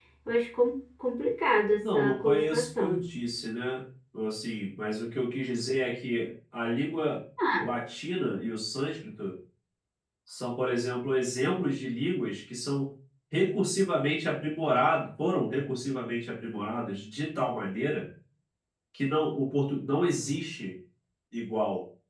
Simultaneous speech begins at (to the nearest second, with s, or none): 2 s